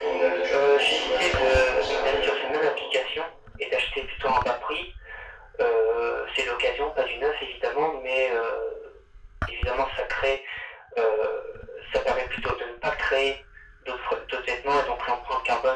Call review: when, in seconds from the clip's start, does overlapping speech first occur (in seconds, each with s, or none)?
0.5 s